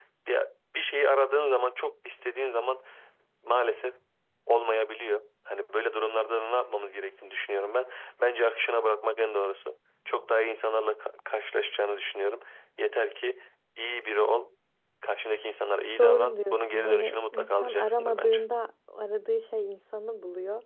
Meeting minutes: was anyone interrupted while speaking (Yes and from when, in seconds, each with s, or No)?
Yes, from 16.0 s